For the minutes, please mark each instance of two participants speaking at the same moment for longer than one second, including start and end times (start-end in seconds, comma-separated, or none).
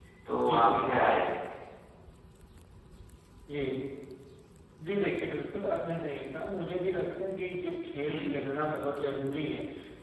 none